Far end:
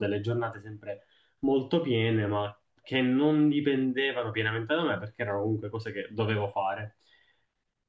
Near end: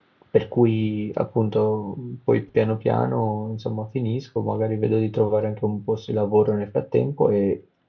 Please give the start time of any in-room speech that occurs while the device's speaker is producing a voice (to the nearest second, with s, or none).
0 s